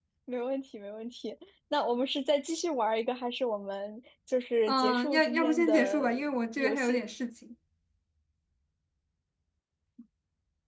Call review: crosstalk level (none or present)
present